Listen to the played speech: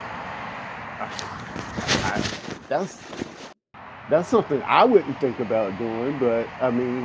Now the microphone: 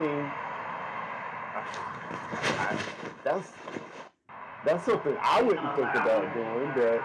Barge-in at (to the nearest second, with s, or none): 5 s